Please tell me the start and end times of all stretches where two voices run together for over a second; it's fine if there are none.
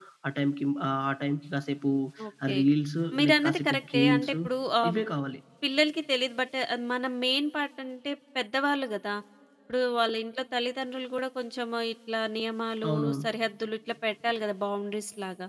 3.2-4.4

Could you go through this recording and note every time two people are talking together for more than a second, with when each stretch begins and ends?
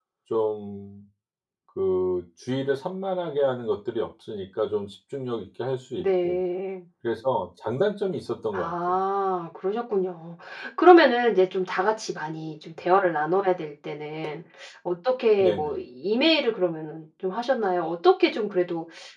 none

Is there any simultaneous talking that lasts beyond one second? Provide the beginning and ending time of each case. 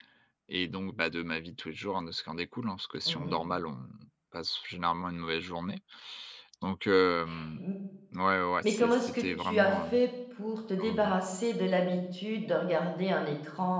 8.6-10.0

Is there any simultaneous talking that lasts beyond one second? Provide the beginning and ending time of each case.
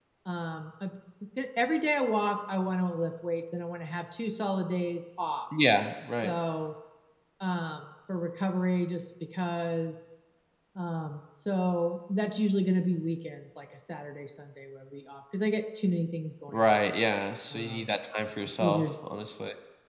none

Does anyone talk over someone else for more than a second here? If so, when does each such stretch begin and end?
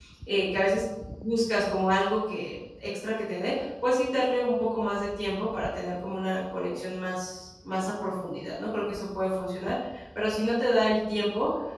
none

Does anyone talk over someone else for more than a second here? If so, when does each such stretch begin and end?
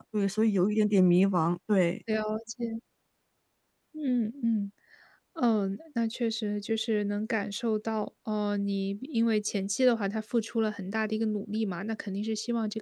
none

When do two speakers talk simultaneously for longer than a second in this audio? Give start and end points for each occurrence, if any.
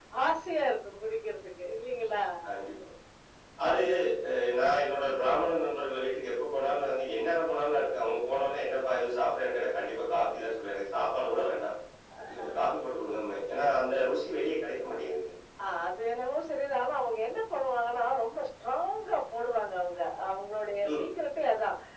none

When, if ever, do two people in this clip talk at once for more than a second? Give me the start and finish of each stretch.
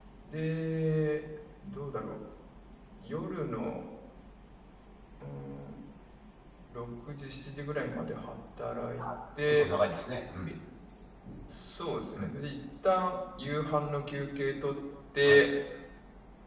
none

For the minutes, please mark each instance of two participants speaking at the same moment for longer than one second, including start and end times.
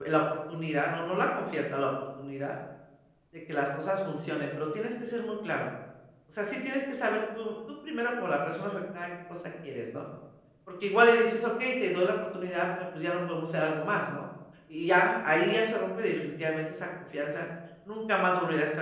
none

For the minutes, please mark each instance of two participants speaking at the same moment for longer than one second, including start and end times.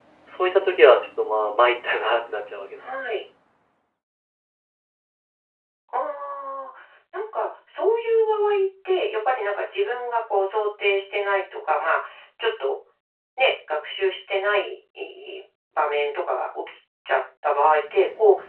none

